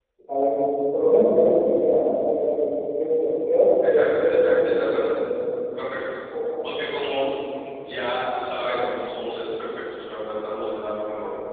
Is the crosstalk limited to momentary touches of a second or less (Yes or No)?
No